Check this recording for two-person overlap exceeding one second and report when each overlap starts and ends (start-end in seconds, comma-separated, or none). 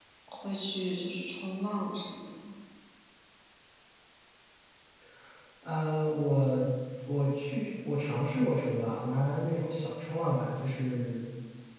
none